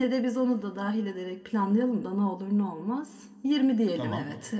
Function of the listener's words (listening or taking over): taking over